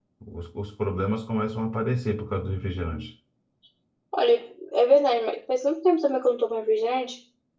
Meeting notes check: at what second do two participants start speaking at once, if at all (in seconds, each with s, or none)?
none